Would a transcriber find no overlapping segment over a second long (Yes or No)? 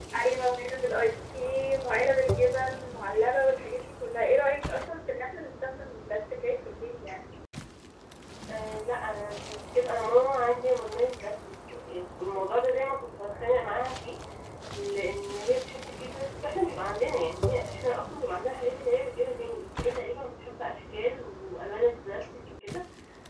Yes